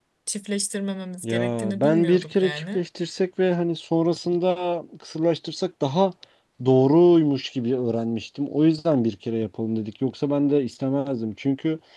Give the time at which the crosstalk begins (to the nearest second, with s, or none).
1 s